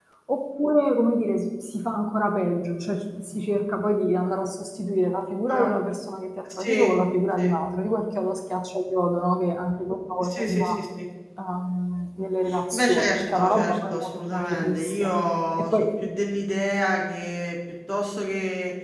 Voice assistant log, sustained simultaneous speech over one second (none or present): present